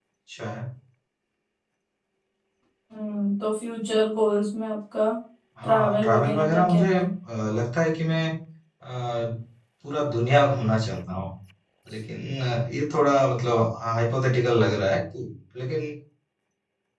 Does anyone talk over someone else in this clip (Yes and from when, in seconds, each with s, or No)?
Yes, from 5.6 s